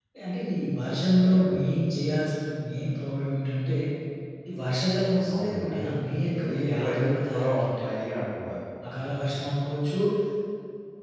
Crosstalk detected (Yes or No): Yes